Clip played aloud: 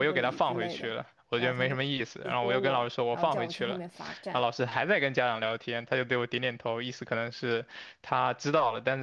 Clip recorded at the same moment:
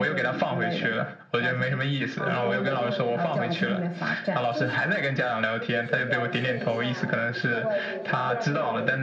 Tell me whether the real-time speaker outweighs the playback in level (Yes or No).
No